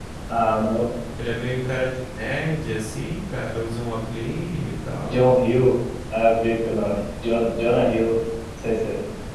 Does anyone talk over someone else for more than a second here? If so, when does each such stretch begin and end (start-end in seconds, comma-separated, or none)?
none